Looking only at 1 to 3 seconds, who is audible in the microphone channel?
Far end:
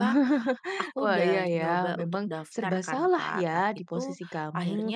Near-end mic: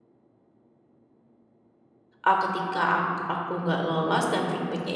user only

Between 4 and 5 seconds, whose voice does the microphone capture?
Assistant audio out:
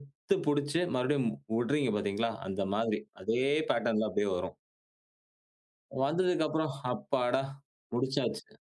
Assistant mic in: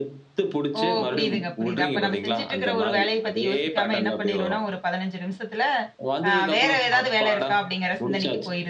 both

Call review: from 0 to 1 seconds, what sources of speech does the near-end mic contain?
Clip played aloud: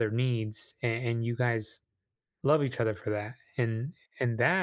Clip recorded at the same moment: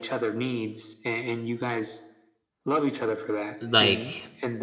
echo only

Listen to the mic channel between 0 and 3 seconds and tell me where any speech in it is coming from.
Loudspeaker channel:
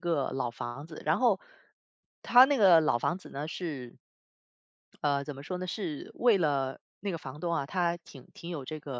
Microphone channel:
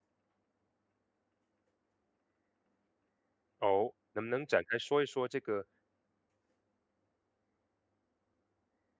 neither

